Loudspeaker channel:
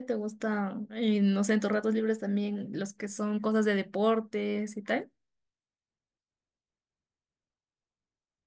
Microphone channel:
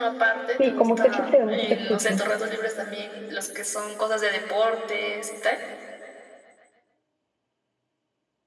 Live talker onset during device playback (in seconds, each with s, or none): 0.6 s